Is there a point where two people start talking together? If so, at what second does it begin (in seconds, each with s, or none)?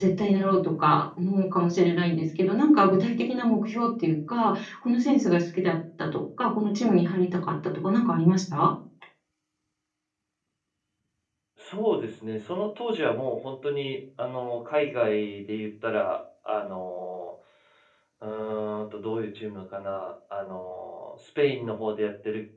none